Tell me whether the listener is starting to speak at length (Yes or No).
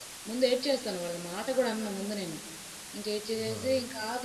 No